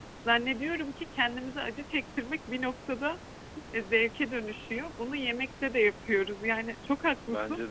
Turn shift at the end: No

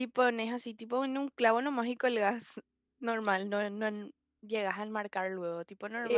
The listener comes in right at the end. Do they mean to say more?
Yes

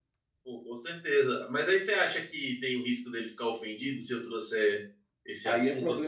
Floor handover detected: Yes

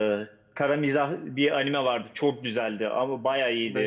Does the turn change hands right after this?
No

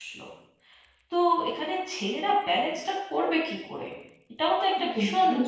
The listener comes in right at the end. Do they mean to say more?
Yes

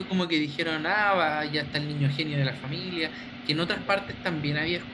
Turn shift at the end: No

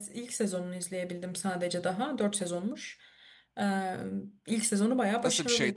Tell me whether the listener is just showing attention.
No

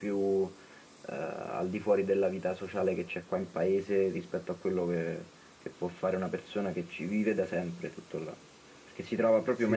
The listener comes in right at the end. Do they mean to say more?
Yes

